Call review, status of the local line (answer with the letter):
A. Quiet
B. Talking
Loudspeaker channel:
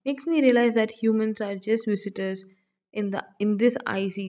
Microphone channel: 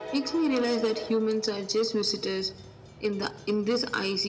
A